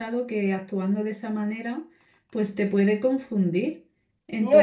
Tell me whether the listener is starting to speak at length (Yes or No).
No